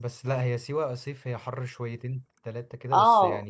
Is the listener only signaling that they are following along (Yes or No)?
No